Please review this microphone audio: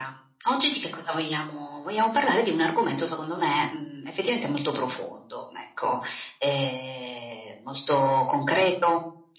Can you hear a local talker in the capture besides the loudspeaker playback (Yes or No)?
No